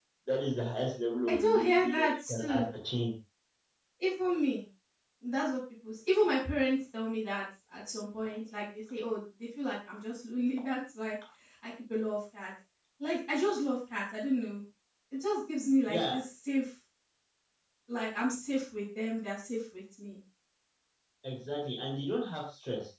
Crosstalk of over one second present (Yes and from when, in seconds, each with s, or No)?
Yes, from 1.3 s